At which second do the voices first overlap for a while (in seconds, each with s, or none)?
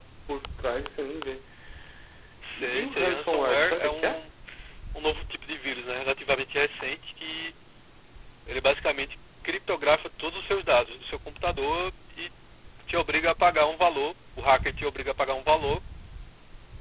2.6 s